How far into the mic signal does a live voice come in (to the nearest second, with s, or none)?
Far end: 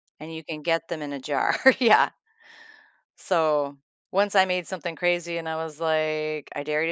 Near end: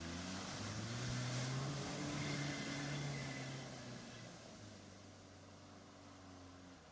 none